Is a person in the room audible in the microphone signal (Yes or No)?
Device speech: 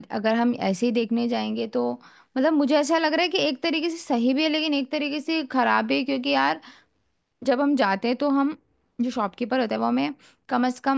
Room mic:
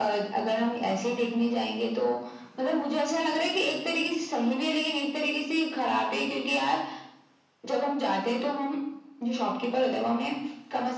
No